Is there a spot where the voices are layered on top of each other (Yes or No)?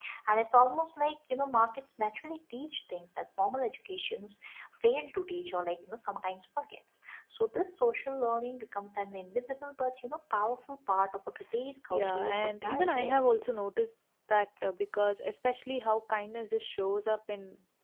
Yes